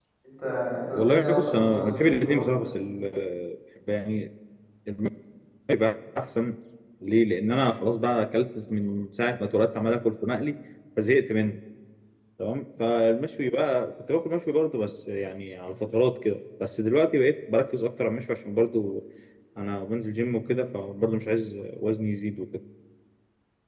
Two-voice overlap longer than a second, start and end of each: 0.9-2.7

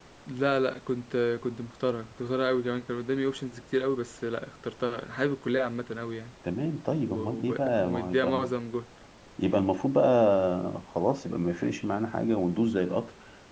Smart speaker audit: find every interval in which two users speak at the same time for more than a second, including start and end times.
7.1-8.4

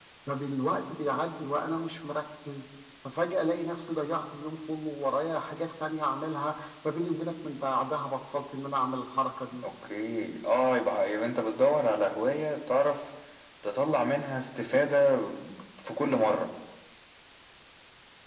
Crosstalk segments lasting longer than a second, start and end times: none

